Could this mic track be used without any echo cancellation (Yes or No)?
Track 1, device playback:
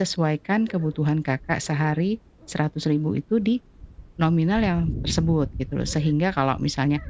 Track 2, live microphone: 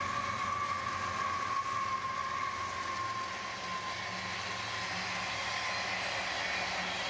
Yes